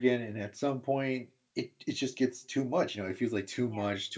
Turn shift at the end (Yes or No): No